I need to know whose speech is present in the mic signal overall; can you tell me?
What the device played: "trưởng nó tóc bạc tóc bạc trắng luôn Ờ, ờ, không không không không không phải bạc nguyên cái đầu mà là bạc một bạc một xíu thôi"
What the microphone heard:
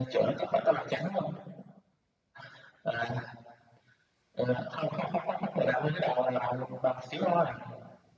echo only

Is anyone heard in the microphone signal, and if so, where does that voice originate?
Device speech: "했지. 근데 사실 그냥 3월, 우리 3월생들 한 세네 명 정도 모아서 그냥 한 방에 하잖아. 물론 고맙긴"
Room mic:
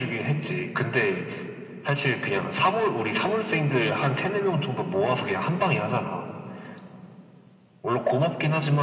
echo only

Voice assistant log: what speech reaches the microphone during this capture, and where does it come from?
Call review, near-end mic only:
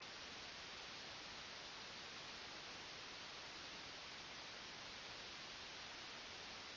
neither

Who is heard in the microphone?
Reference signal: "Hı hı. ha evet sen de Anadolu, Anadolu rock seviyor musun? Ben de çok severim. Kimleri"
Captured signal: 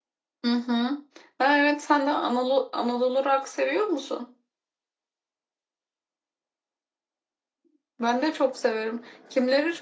echo only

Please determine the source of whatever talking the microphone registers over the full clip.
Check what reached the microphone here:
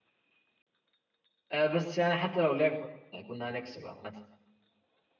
user only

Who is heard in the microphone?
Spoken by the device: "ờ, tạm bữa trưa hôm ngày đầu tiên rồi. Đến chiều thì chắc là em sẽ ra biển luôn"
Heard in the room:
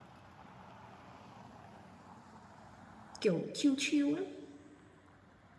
user only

